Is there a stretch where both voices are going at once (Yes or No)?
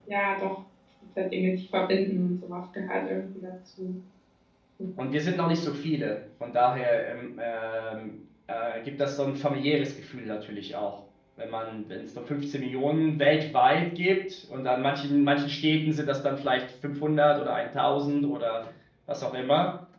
No